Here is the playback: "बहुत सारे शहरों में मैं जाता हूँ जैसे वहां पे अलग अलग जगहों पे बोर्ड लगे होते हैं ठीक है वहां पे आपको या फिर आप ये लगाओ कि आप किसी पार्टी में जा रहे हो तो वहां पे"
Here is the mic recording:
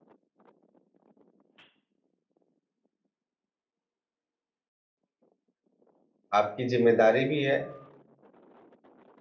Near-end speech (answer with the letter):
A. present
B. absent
A